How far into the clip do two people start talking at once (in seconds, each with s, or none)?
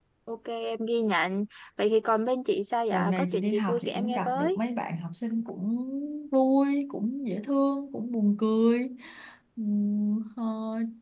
2.9 s